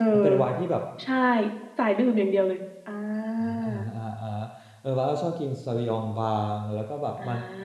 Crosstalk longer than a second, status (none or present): none